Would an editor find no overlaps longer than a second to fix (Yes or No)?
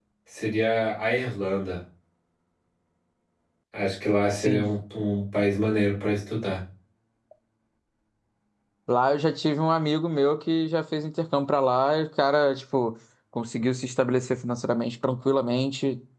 Yes